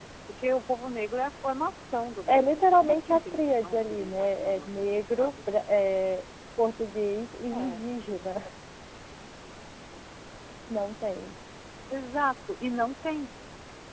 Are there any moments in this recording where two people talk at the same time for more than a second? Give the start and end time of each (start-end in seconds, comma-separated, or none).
2.3-5.3